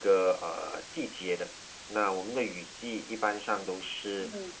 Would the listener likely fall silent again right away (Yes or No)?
Yes